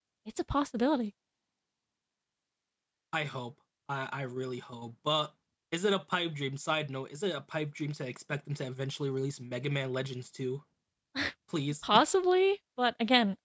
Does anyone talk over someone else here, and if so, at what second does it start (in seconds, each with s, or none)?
none